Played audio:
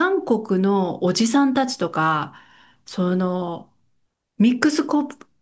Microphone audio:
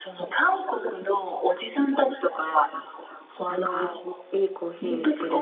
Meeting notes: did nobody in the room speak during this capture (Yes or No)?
No